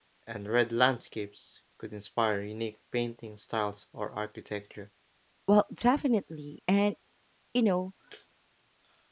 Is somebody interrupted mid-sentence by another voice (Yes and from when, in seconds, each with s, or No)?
No